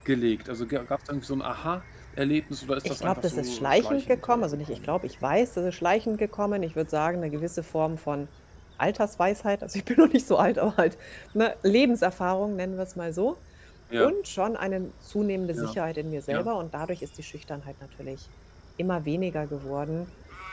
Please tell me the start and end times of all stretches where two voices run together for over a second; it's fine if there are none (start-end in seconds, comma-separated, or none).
2.8-4.9